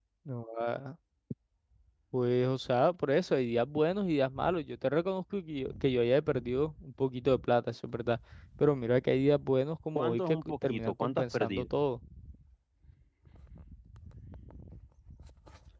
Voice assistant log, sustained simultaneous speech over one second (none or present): present